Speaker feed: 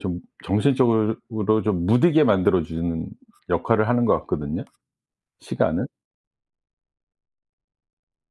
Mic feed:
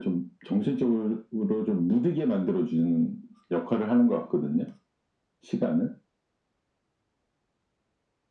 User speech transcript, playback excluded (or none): none